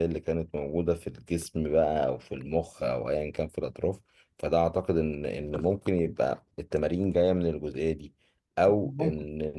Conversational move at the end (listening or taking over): listening